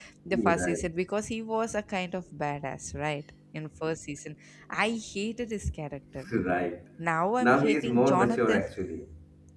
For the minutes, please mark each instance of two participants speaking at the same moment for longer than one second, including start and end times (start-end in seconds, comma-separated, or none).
7.4-8.6